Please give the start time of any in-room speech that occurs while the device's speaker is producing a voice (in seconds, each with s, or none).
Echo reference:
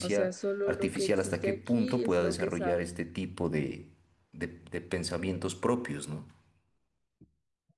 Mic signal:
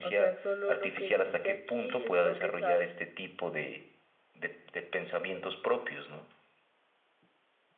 none